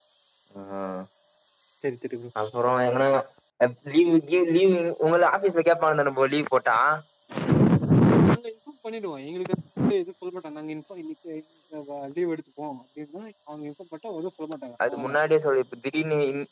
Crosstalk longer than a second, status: none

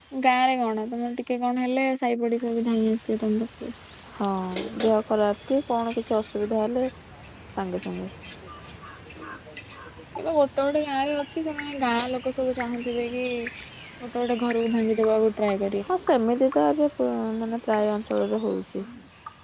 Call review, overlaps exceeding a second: none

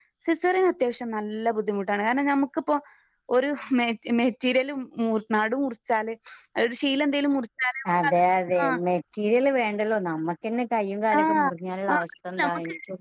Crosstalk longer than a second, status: none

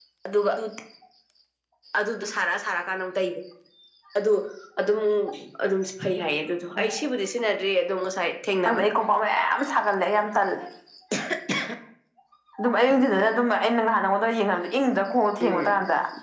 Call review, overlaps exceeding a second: none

